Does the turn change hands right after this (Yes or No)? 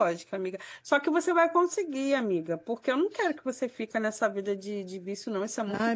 Yes